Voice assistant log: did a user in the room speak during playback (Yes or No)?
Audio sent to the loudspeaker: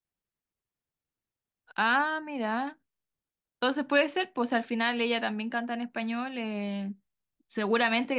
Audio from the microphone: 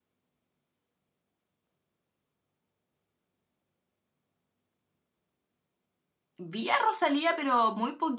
Yes